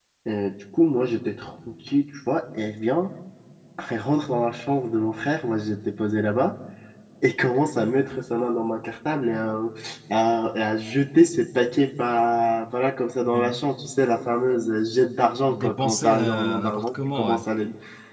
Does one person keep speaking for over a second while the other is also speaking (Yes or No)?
Yes